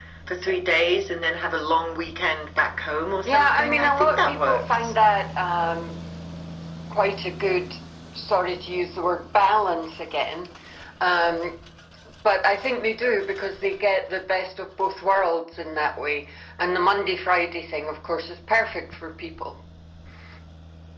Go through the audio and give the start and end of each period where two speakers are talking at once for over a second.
3.2-4.9

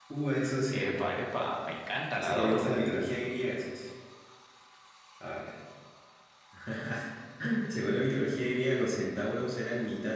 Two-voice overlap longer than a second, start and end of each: none

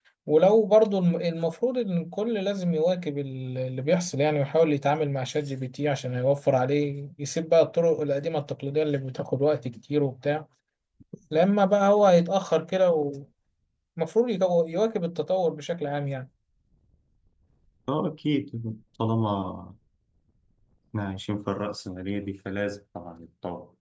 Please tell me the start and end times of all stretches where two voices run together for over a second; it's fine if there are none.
none

